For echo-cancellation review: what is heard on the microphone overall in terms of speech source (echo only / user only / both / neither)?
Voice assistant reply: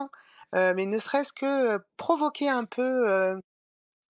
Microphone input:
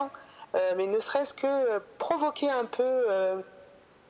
echo only